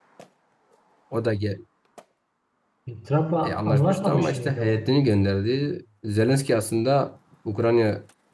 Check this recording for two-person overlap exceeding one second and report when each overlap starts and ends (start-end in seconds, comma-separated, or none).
3.4-4.8